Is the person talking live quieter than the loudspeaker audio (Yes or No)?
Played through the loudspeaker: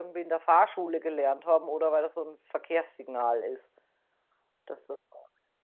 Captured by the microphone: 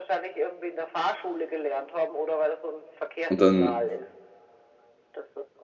No